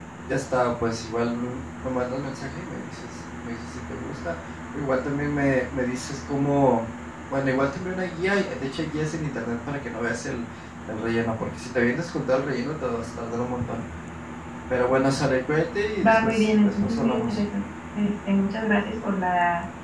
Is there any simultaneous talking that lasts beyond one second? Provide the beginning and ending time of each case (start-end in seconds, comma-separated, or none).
16.0-17.4